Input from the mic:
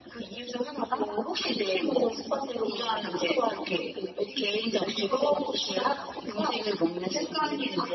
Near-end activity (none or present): none